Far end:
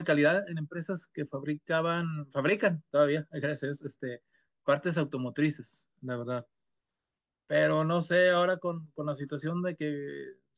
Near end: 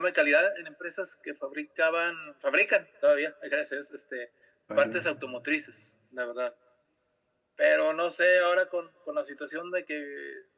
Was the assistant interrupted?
Yes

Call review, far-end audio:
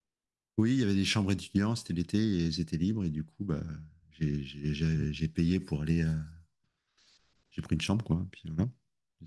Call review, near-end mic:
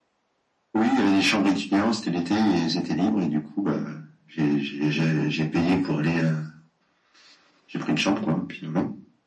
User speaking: No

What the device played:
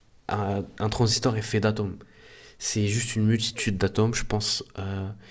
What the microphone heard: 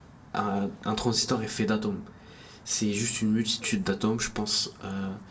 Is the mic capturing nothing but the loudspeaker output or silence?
Yes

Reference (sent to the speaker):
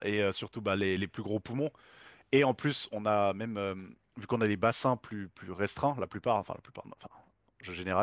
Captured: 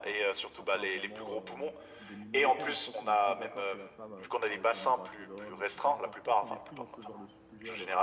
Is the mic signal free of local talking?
No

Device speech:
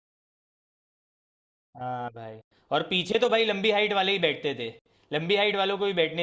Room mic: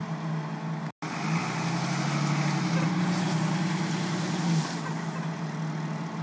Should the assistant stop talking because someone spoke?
No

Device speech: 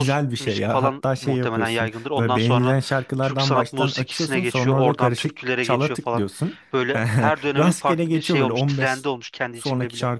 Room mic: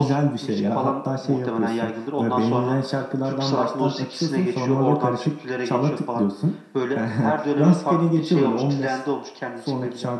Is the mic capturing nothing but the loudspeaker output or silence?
Yes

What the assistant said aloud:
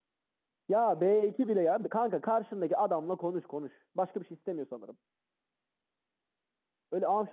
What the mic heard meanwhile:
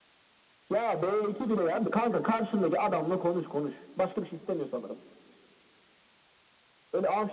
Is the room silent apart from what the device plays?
Yes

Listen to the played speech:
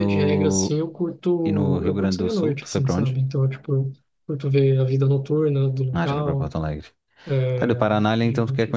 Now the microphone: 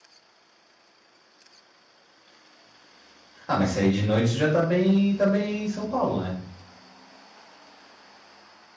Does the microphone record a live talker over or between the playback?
Yes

